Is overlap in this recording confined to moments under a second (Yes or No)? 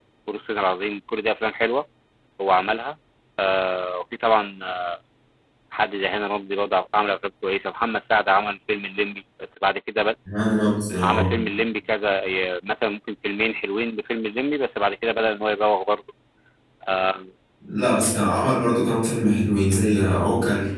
Yes